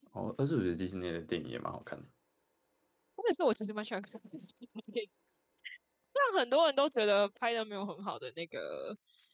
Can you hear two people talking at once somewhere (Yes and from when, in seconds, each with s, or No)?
No